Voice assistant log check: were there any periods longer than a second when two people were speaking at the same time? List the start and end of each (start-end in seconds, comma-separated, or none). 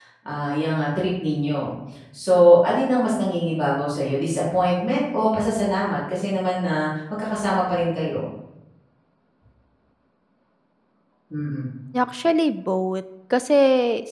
none